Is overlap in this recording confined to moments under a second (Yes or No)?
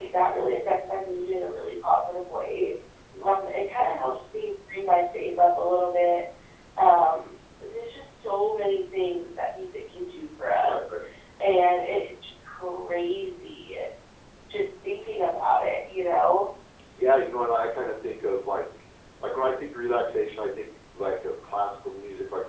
Yes